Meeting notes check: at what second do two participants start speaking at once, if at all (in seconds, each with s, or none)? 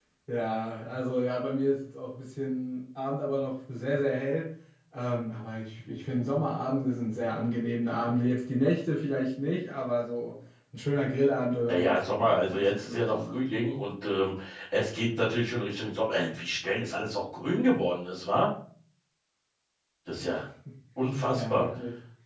11.7 s